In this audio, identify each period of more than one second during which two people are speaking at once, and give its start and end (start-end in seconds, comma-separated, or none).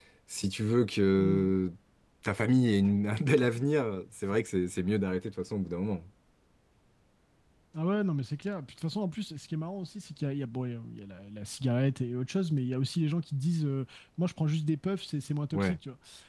none